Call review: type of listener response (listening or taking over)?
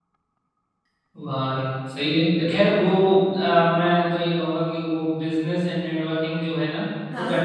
listening